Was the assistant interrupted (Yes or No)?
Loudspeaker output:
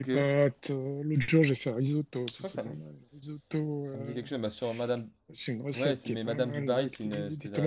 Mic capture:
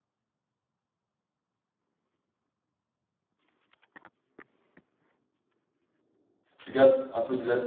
Yes